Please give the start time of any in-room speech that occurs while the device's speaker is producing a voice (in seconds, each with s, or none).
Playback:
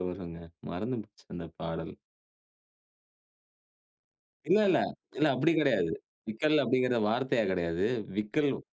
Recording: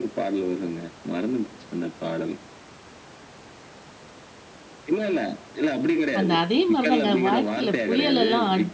6.2 s